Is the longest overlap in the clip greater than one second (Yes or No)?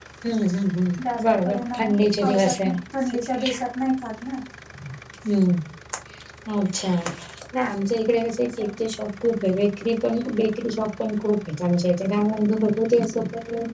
Yes